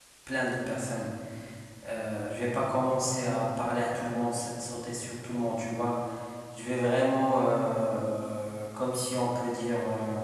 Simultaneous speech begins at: none

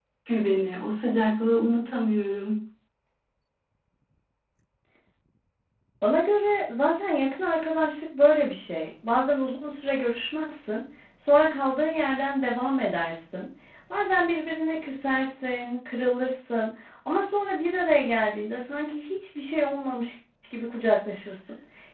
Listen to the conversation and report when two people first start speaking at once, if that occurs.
none

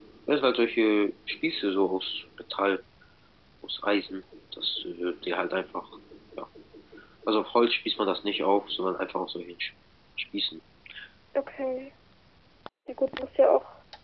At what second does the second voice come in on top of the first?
none

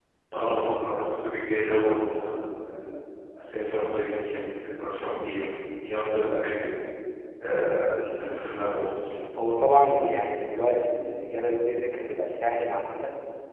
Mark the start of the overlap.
none

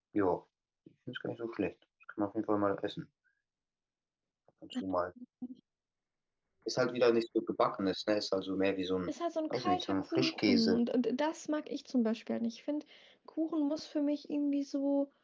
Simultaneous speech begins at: 9.5 s

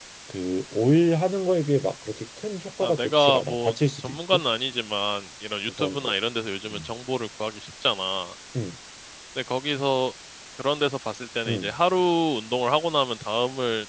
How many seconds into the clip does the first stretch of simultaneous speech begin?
2.8 s

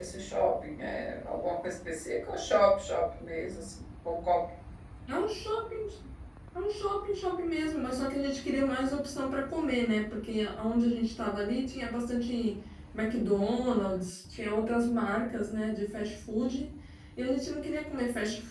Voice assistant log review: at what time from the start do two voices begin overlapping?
none

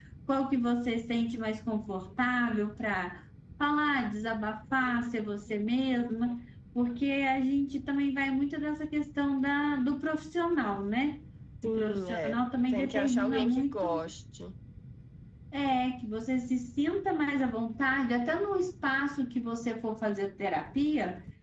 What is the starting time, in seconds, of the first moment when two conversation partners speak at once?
11.6 s

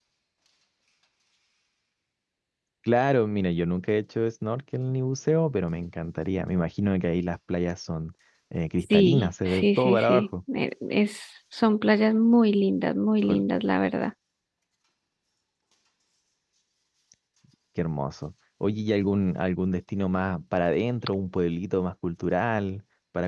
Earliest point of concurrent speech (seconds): 8.9 s

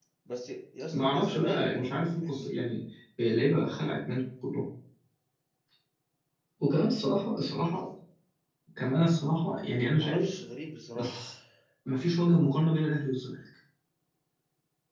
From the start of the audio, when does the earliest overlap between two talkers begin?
0.9 s

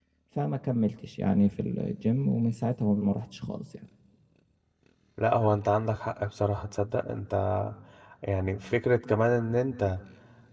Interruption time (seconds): none

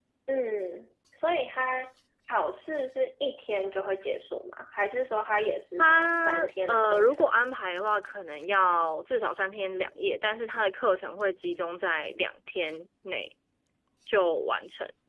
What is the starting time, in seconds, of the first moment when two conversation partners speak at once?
5.8 s

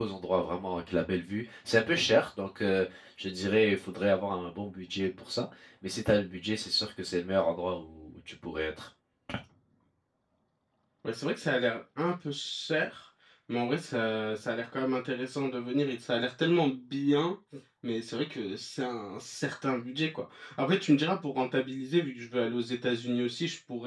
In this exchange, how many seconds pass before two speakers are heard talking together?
none

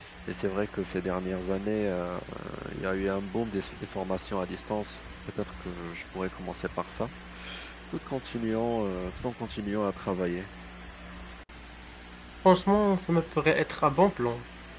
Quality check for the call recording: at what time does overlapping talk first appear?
none

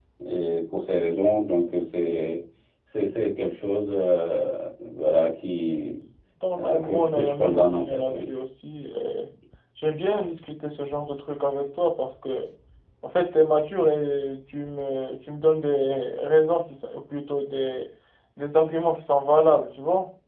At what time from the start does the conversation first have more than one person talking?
6.6 s

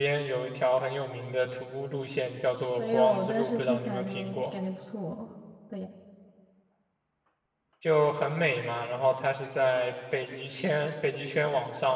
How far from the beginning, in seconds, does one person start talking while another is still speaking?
2.8 s

